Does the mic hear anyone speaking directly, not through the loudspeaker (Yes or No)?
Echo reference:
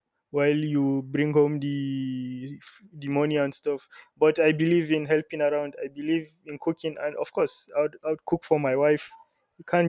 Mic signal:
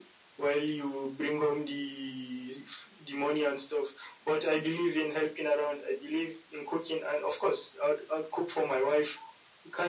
No